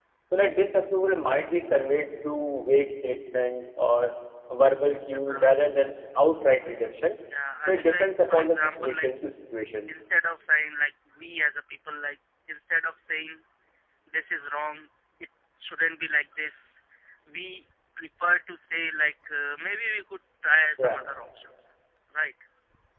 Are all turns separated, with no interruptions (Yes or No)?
No